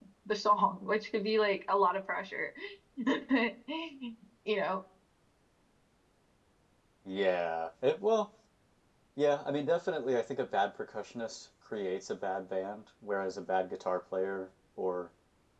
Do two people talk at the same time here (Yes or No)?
No